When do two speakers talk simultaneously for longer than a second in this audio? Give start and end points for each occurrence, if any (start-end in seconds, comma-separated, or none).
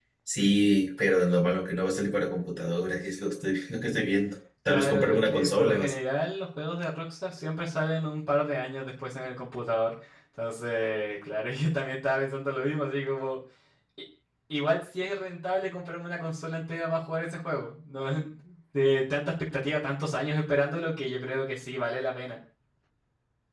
4.7-5.9